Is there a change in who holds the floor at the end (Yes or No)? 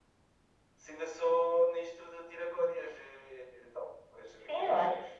Yes